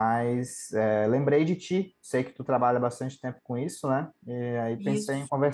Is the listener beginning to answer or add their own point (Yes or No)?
No